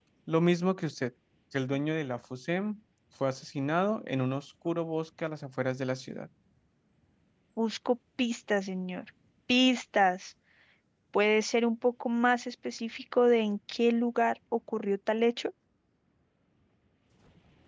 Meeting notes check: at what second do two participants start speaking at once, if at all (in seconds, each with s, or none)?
none